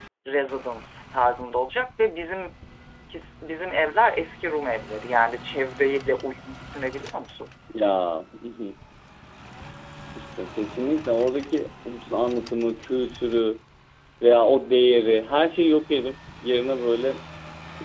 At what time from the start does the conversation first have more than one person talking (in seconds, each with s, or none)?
none